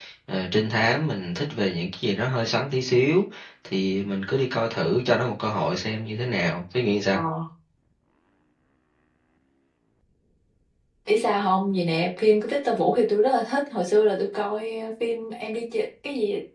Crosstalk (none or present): none